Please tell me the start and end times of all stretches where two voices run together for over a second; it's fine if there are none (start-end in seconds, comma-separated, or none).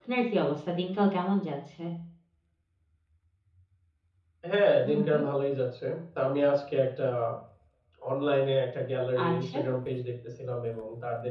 none